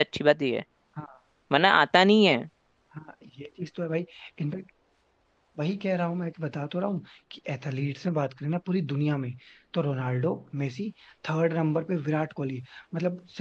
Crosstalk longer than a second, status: none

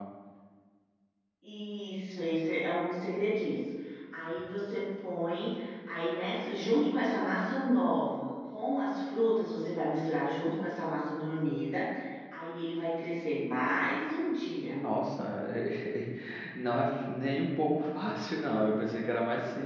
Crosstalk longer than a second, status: none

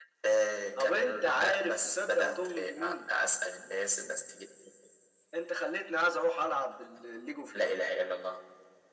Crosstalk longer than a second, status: present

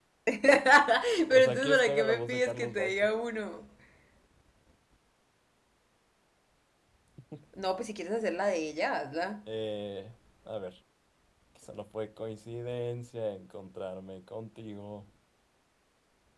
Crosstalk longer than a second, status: present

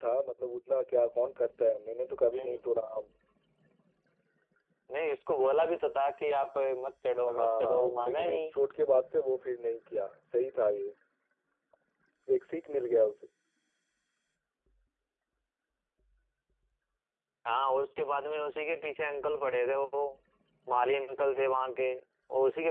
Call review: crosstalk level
present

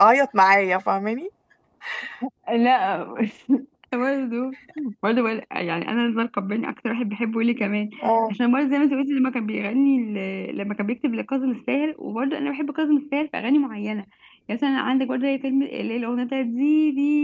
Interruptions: none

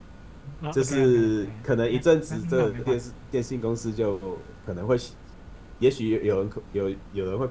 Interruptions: present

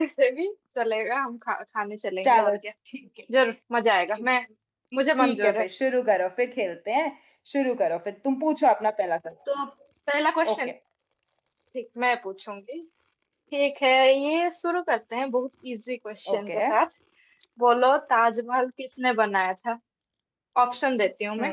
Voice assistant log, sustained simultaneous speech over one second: none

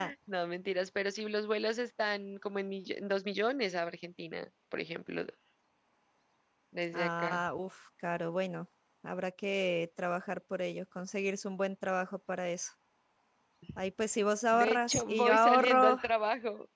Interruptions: present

